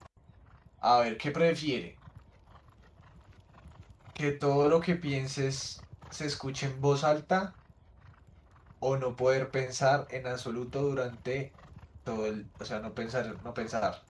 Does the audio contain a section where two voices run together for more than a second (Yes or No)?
No